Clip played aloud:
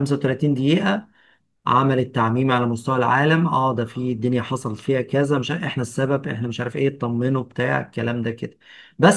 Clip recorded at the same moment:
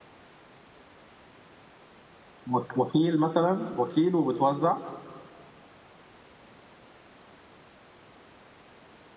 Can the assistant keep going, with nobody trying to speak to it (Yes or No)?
No